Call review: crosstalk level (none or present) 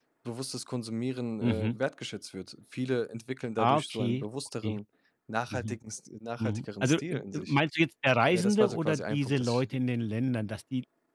present